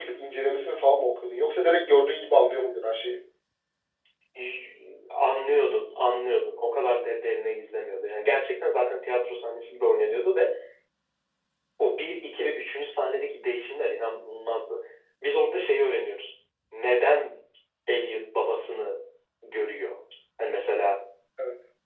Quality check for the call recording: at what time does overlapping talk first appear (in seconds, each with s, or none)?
none